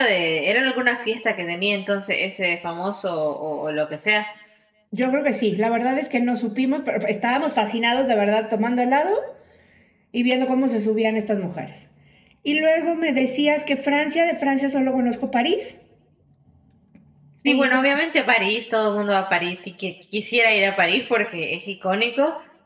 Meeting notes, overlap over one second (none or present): none